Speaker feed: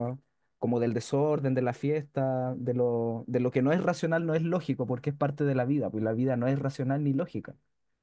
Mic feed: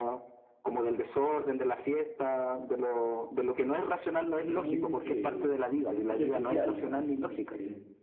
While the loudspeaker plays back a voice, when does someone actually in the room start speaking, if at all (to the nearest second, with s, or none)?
4 s